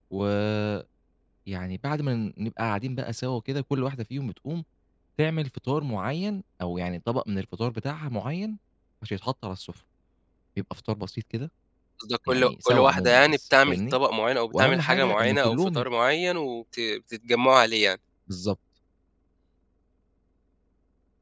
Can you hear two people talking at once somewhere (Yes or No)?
Yes